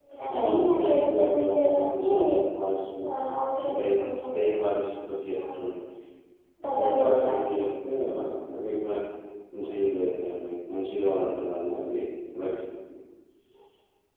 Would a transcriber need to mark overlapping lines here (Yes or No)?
Yes